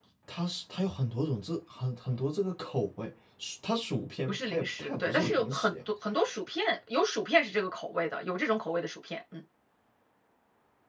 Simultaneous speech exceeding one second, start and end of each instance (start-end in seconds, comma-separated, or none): 4.3-5.7